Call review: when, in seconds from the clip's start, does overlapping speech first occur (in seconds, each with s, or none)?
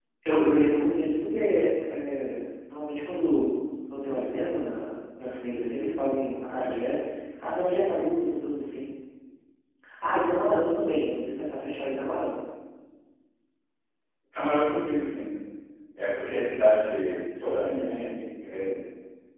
none